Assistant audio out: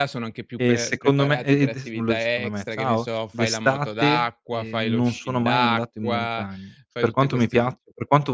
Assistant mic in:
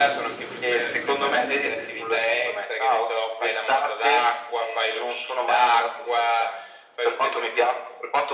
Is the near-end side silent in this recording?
Yes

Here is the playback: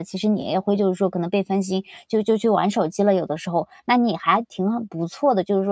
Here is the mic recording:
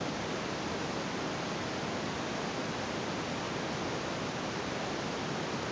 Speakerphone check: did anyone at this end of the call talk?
No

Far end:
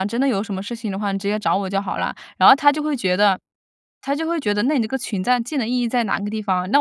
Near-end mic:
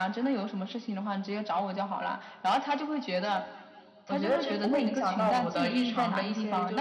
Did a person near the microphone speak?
Yes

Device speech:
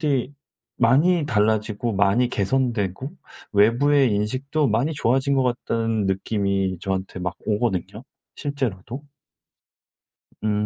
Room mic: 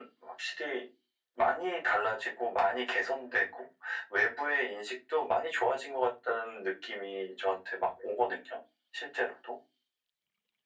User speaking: No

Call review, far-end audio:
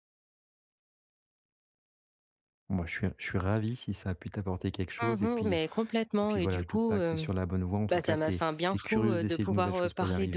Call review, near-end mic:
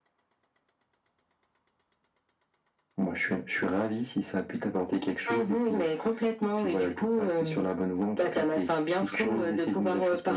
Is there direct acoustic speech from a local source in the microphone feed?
No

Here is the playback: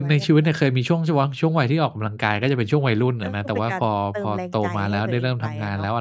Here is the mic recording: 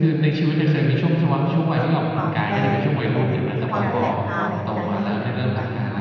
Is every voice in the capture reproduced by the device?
No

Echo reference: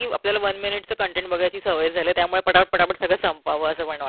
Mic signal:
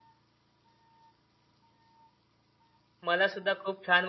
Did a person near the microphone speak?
Yes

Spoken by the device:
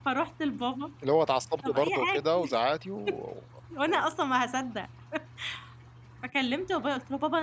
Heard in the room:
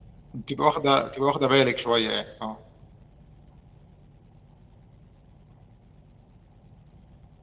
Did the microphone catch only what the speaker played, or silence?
No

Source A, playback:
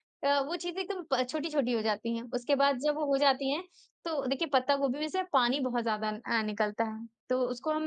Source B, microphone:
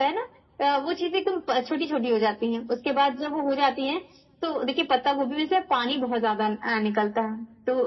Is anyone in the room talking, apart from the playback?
No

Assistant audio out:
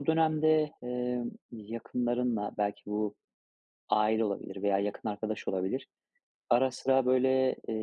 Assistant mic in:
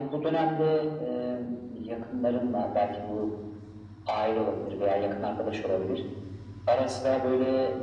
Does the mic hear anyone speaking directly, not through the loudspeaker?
No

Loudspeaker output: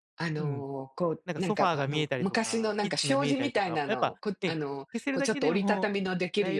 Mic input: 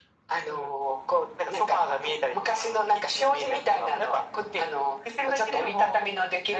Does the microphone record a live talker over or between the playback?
No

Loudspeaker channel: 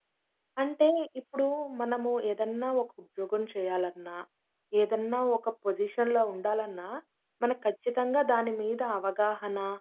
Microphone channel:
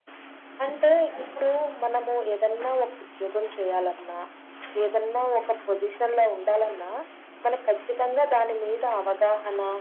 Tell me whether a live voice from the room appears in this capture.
No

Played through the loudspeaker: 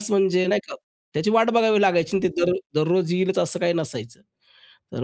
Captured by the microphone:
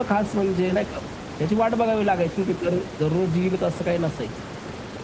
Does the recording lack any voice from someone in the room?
Yes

